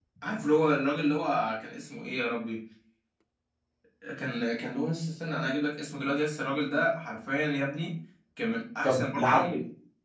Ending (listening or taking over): taking over